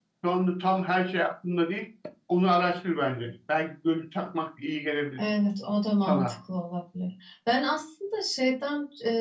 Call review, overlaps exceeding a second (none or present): none